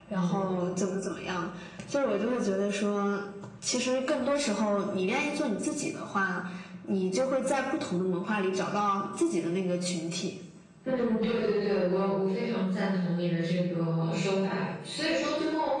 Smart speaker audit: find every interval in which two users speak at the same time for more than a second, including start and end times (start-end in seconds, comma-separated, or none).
none